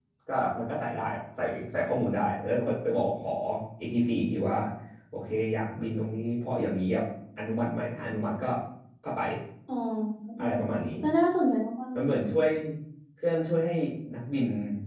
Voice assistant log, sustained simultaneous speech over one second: none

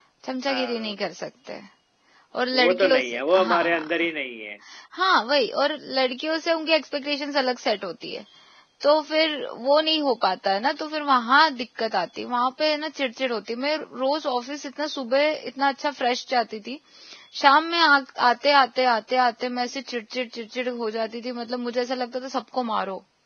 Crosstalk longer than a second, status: present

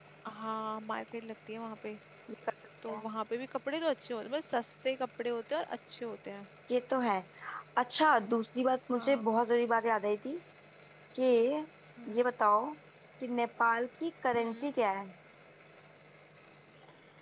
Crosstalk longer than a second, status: none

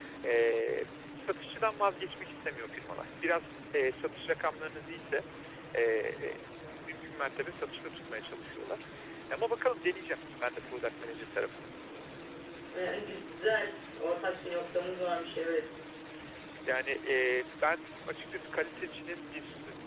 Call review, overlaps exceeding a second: none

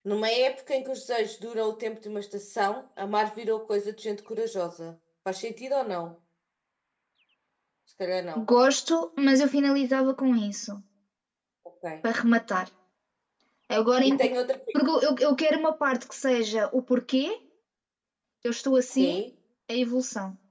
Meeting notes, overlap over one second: none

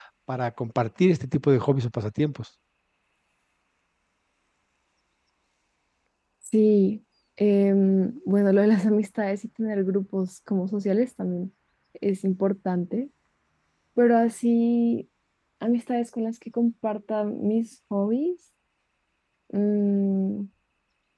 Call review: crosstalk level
none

